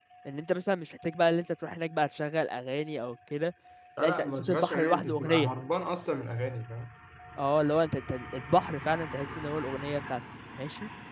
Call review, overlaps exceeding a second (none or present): present